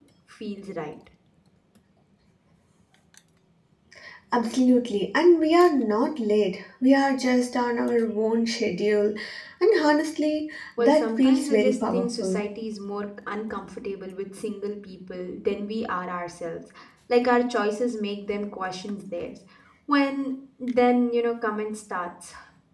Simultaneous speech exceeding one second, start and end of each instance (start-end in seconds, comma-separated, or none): 10.8-12.4